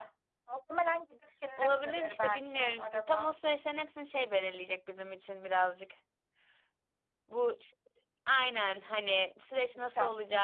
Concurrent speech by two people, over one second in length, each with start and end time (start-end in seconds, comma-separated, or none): 1.6-3.3